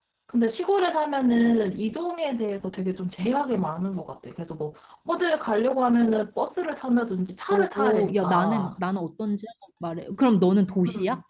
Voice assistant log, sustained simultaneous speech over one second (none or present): present